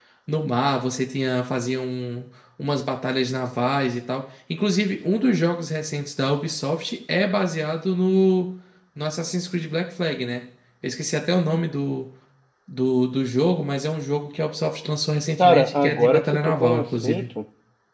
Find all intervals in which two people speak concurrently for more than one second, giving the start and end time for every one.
15.4-17.3

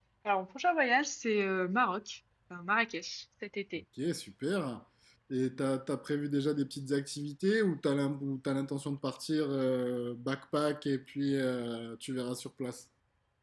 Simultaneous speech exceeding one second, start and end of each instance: none

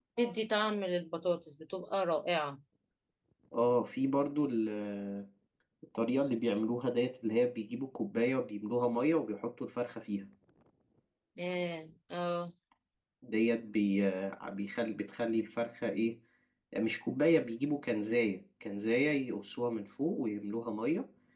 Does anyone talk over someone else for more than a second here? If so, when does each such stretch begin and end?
none

